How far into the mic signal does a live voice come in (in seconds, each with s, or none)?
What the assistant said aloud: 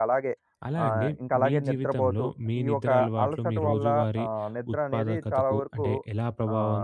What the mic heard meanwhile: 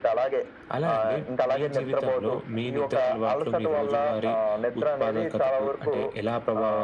none